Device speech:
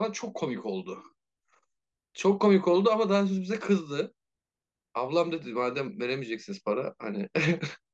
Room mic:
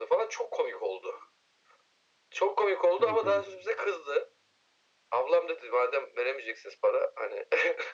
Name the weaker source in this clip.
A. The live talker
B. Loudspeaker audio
A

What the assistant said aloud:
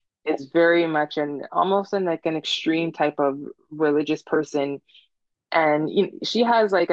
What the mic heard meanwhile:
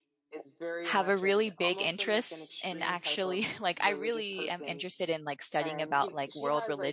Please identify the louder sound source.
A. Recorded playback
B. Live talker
B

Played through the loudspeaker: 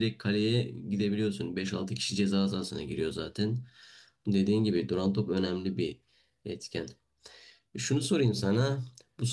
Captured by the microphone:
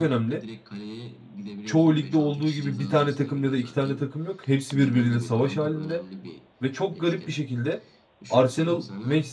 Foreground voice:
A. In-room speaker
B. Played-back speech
A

